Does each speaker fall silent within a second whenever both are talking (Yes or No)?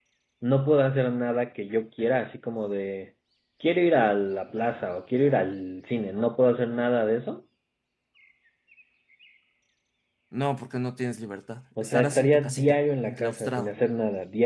No